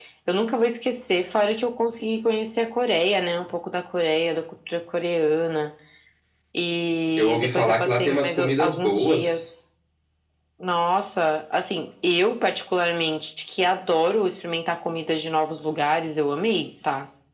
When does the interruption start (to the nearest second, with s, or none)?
7 s